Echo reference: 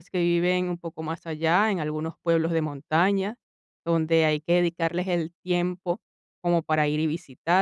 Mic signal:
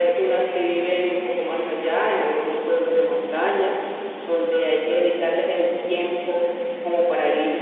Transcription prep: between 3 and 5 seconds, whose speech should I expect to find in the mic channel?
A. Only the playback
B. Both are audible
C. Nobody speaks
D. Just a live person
A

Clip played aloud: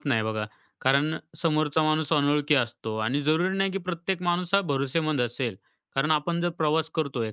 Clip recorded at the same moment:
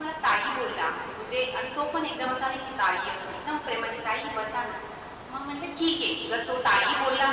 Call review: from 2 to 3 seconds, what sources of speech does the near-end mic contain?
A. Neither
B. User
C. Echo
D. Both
B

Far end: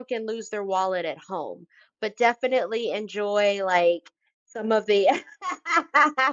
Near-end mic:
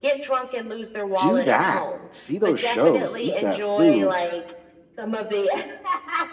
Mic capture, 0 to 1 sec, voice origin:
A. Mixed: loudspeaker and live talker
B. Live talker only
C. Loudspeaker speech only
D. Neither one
C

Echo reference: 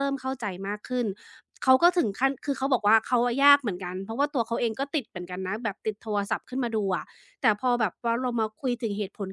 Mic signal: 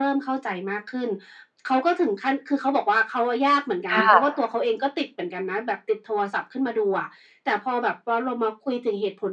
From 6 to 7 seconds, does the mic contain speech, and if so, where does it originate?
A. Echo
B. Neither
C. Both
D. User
A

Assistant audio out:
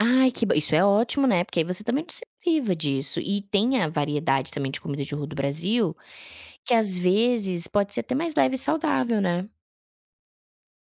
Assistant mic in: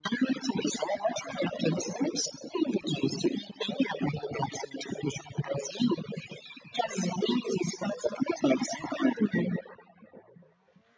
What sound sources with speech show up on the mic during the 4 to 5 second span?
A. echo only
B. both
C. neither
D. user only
A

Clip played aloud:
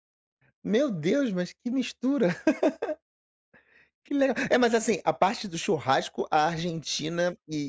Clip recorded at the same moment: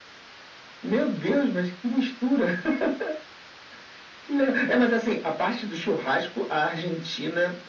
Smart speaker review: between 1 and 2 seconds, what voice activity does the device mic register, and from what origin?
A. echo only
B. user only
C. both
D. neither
A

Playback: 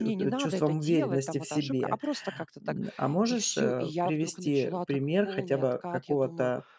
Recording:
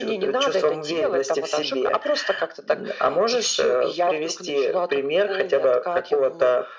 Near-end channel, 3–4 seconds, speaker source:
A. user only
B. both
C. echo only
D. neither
C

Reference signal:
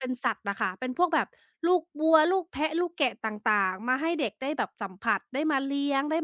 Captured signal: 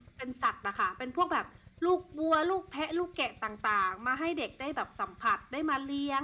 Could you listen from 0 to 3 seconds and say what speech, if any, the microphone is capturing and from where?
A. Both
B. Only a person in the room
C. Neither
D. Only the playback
D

